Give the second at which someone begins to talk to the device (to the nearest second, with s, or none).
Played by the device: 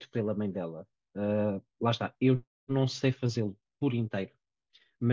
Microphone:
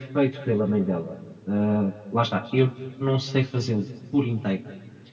none